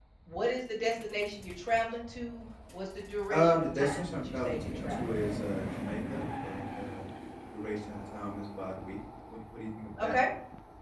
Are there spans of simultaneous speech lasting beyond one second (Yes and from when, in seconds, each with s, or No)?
Yes, from 3.3 s